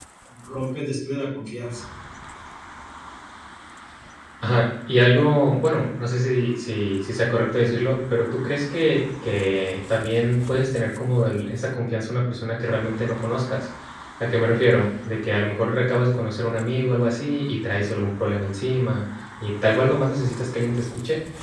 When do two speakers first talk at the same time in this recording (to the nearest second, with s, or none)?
none